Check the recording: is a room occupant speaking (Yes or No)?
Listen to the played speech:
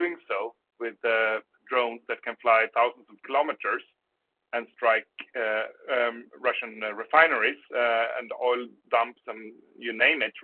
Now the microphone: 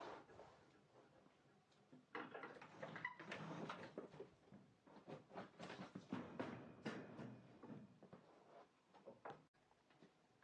No